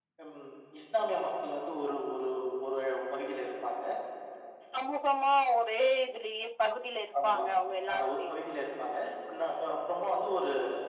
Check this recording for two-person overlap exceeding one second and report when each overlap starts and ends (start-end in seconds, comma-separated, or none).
none